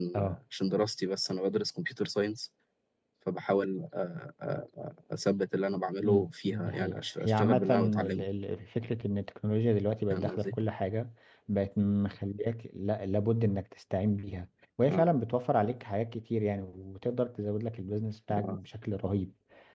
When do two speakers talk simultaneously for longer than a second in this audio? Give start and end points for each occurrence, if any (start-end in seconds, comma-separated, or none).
6.0-8.3